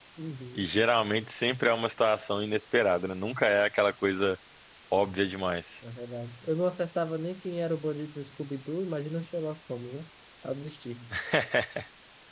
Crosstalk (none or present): none